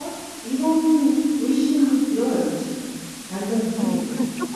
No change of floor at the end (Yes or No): No